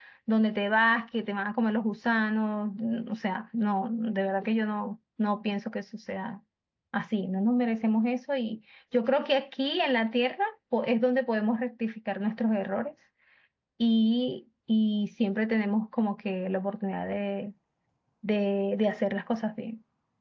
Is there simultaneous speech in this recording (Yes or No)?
No